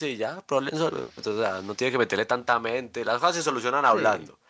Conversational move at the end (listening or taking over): listening